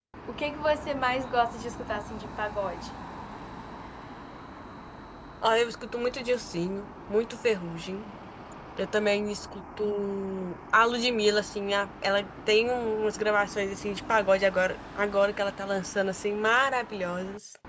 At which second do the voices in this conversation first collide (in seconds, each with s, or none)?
none